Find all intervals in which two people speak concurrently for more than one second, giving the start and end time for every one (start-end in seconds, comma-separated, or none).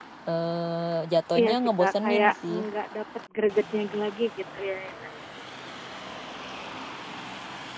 1.4-2.6